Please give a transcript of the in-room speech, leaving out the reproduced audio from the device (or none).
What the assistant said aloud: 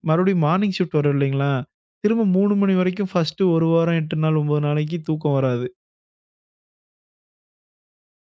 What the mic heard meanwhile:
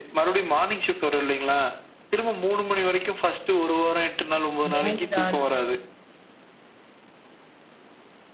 நோ சார்ஜ்.